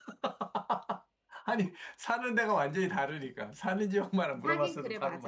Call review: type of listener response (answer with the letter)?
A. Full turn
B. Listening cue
A